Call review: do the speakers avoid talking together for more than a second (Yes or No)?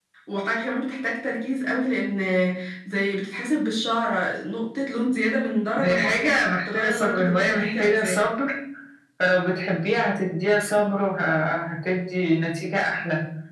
No